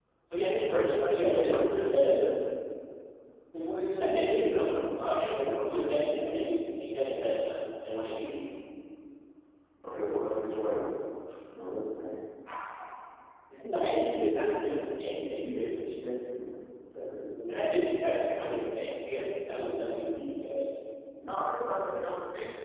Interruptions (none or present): present